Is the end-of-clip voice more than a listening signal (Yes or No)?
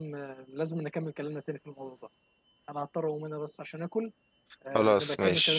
Yes